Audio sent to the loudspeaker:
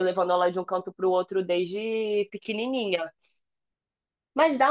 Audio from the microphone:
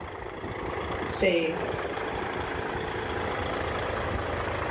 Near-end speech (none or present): present